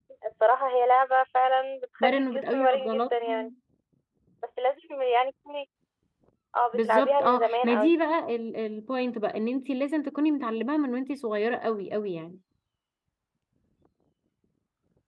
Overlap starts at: 2.0 s

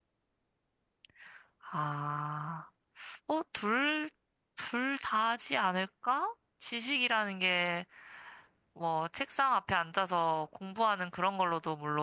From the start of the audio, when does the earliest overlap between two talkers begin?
none

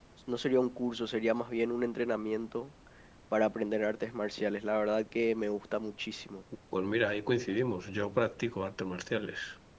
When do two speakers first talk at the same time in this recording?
none

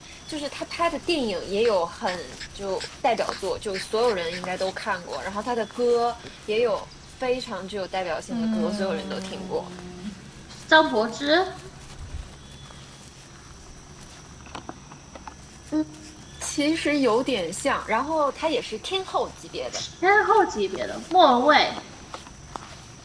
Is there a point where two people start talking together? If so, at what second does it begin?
8.3 s

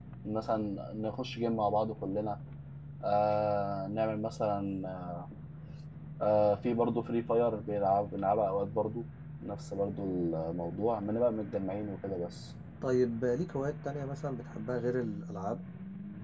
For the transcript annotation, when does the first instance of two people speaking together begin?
none

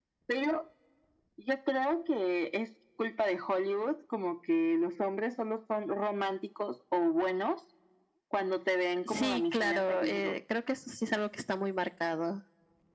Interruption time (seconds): 9.1 s

